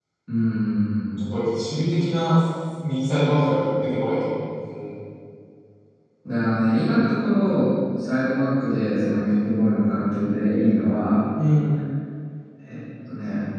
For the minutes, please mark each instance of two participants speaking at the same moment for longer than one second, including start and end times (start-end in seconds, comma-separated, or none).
none